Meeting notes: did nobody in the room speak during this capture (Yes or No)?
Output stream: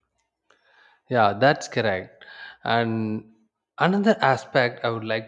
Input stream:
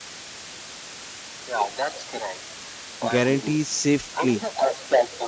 No